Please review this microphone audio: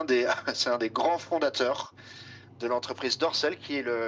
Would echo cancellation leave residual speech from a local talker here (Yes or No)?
No